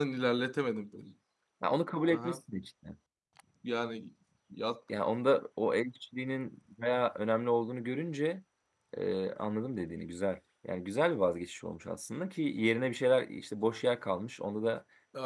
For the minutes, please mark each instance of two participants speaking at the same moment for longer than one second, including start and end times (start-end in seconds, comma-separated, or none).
none